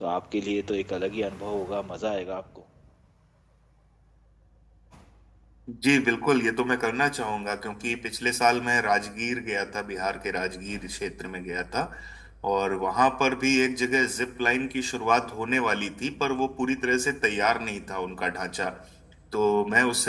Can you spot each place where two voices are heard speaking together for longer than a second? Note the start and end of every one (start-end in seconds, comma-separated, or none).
none